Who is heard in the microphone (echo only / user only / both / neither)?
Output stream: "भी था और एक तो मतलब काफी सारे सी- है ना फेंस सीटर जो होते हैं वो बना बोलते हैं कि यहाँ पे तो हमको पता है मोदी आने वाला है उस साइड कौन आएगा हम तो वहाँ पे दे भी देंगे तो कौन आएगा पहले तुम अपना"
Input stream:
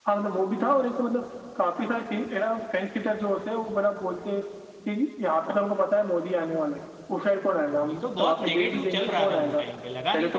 both